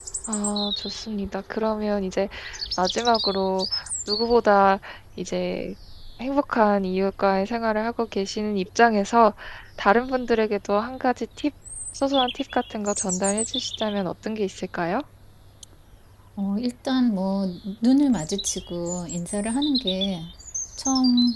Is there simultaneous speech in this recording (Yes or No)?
No